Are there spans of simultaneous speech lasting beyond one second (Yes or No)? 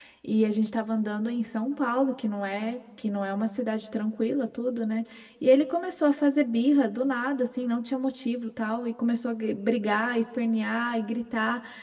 No